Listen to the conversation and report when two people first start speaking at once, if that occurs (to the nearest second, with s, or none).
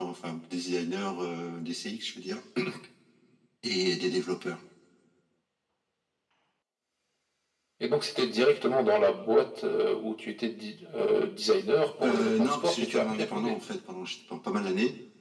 12 s